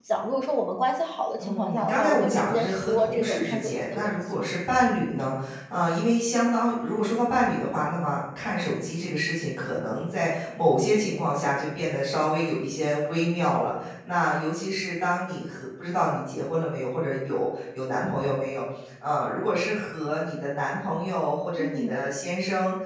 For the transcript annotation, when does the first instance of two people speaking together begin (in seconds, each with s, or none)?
1.4 s